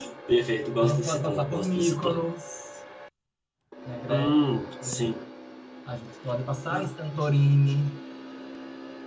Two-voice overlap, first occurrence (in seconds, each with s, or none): 0.8 s